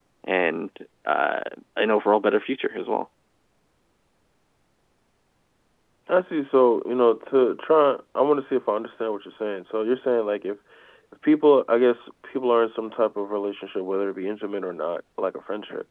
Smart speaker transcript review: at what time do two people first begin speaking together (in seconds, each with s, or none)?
none